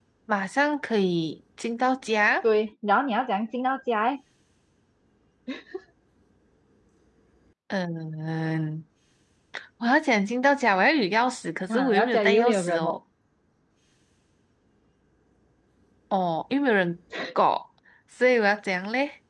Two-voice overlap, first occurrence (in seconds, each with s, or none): 11.7 s